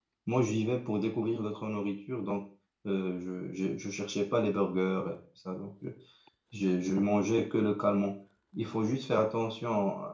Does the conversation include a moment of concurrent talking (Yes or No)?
No